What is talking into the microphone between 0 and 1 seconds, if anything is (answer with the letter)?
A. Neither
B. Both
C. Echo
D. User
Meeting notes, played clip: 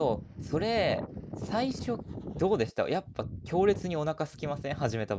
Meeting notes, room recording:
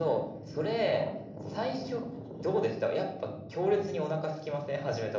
C